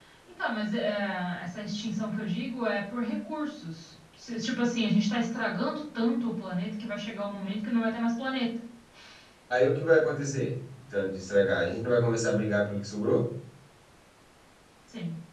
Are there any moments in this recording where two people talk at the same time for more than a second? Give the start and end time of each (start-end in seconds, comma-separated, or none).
none